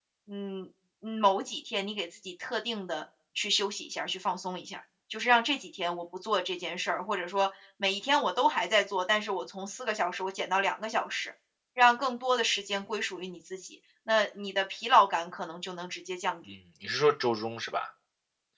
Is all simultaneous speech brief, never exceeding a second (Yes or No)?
Yes